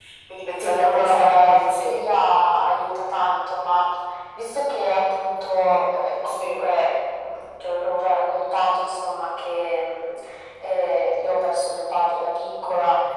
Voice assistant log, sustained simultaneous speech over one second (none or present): present